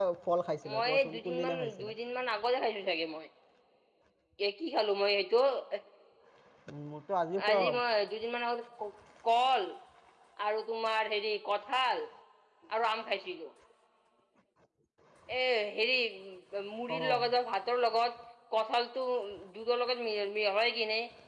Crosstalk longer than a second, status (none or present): present